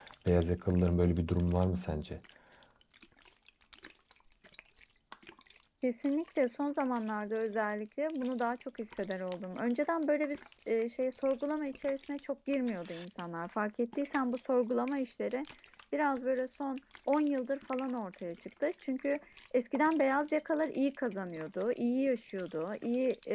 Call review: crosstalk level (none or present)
none